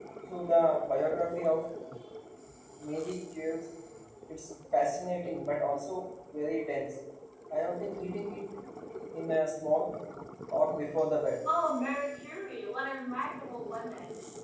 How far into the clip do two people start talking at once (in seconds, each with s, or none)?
none